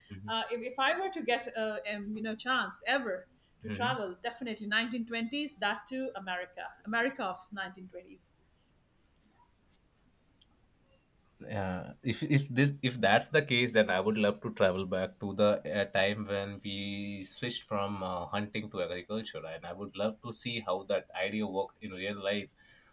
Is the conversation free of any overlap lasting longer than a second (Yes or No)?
Yes